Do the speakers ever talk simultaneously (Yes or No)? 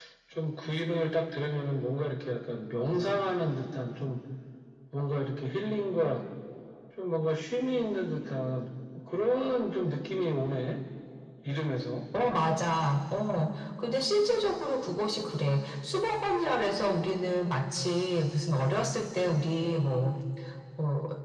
No